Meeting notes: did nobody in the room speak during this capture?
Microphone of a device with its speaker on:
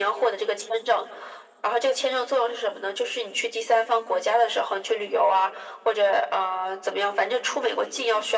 Yes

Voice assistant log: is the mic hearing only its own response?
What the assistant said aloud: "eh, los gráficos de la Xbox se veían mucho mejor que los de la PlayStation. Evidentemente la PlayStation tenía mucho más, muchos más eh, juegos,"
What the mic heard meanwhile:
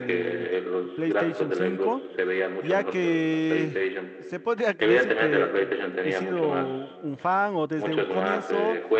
No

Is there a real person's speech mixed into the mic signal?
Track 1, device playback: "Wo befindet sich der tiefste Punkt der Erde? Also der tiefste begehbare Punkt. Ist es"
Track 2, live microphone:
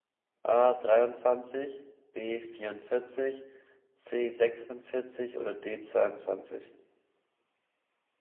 Yes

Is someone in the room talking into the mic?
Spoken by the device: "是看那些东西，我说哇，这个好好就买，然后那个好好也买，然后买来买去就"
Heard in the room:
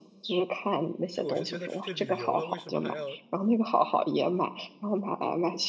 Yes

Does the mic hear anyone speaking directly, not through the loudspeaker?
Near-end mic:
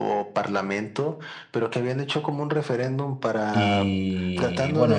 Yes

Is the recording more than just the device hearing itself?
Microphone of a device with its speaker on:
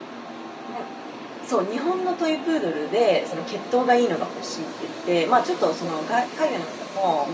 Yes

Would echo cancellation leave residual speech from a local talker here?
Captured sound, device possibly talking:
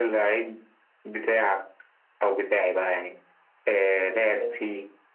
Yes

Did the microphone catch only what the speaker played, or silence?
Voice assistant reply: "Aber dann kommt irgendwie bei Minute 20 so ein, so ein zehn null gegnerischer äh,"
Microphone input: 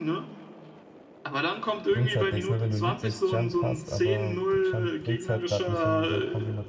No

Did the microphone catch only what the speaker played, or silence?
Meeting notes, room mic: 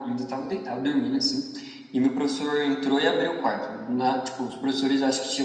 Yes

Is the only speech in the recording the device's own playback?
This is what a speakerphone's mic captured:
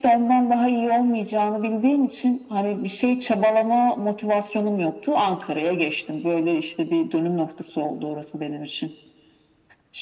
Yes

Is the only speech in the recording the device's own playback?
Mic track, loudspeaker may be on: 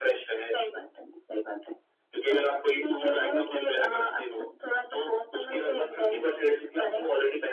Yes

